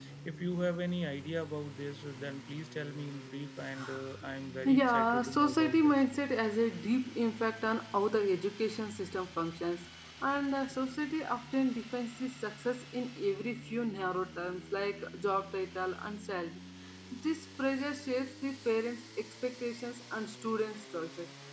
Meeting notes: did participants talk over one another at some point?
Yes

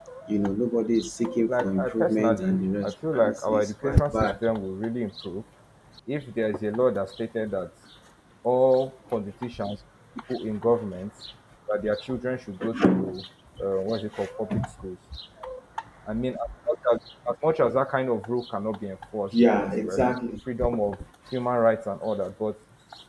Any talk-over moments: Yes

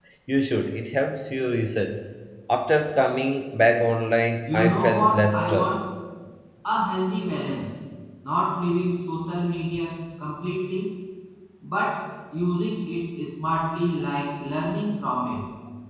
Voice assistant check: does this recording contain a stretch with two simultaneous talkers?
Yes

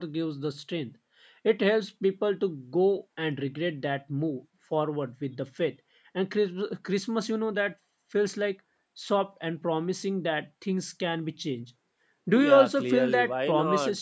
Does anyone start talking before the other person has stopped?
Yes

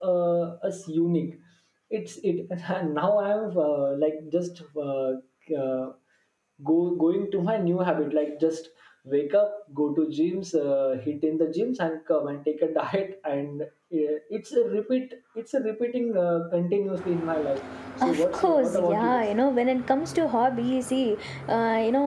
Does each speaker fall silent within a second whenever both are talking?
No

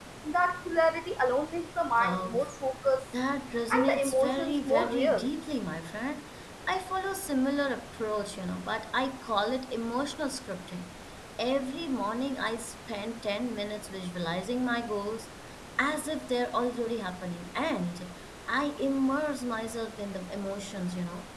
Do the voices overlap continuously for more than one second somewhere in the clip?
Yes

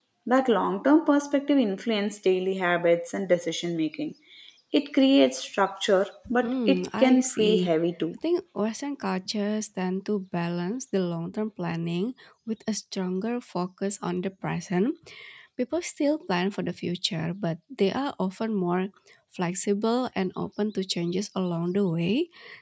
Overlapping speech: Yes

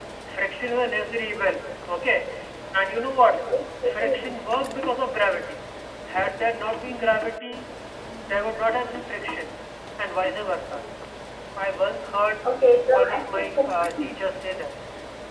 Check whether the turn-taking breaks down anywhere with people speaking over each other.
Yes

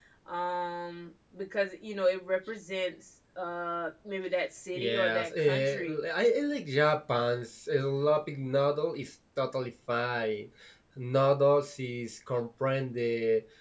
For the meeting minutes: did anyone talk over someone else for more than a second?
Yes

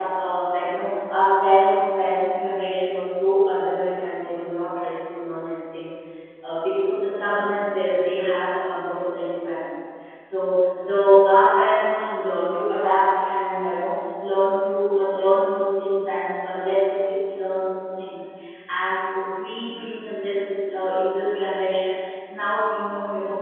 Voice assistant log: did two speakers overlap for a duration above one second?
No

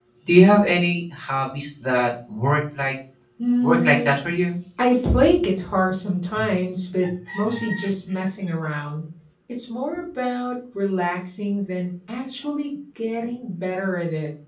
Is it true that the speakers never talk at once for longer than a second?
Yes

